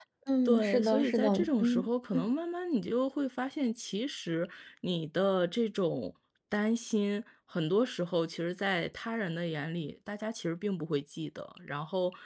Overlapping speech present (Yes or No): Yes